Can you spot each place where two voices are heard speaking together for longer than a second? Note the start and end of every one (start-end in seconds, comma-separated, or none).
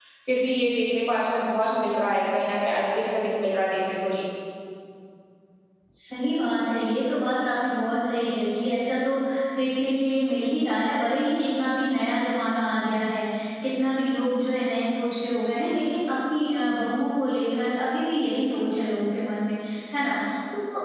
none